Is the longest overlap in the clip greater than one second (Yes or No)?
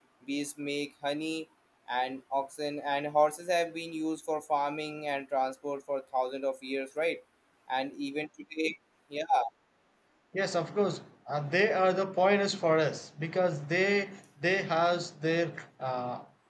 No